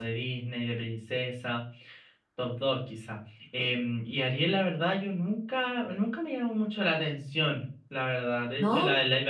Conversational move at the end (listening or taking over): listening